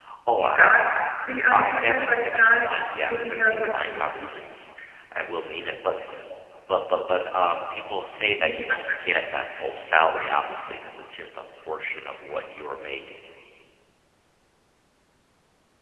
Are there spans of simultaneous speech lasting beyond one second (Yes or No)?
Yes